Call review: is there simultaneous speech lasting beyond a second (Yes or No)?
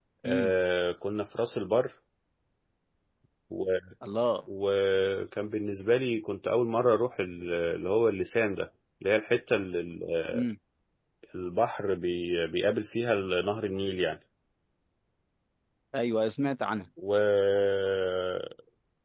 No